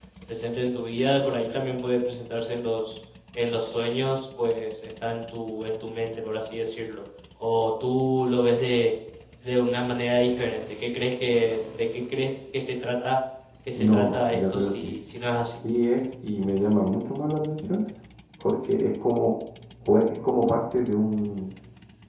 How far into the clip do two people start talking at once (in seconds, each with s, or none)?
13.7 s